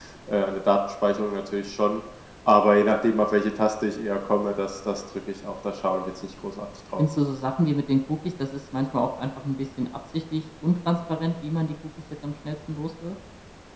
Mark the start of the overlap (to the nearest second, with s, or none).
none